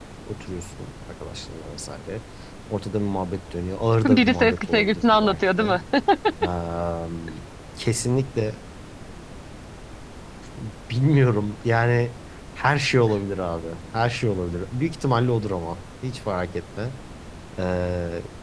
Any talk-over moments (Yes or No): Yes